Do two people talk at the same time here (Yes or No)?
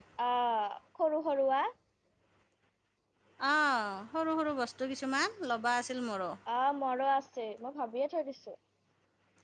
No